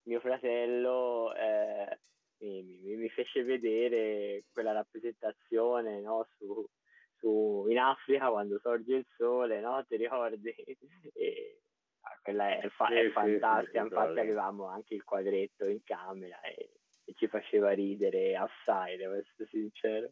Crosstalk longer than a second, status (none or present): present